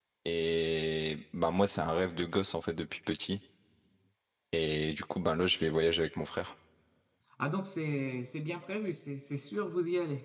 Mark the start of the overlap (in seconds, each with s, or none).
none